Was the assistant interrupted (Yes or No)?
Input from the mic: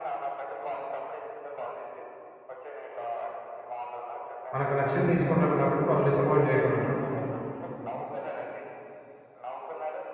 Yes